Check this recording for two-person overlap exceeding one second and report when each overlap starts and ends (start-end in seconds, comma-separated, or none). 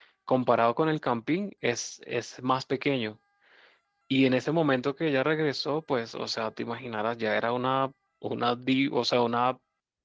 none